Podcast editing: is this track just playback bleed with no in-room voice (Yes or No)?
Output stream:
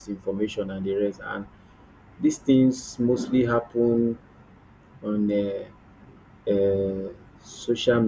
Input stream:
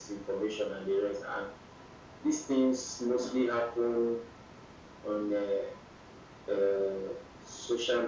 Yes